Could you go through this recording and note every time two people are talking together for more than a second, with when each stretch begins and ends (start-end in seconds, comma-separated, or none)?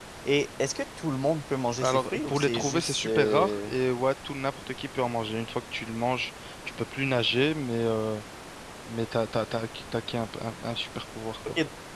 1.8-3.7